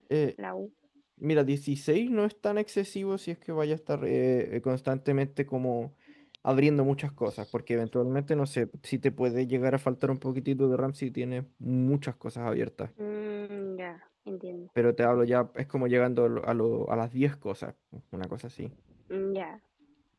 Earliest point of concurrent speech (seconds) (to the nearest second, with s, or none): none